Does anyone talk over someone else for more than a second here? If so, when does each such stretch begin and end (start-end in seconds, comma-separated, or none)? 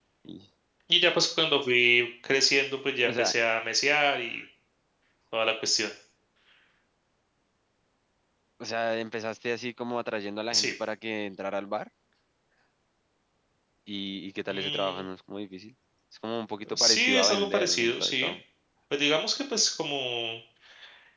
16.8-18.3